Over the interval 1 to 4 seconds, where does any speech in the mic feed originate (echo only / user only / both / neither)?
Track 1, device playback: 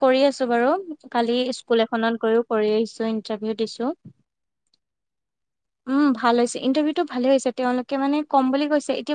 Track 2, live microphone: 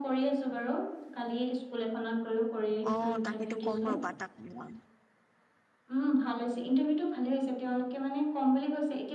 both